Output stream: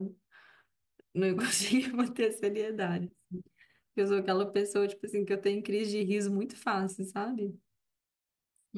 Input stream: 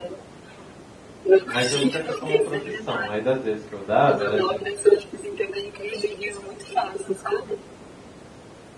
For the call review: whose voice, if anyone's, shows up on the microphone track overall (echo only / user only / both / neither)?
both